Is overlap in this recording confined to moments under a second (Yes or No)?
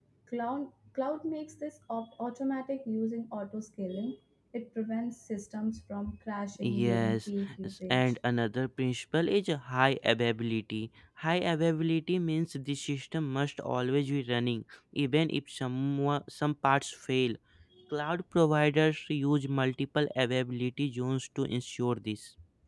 No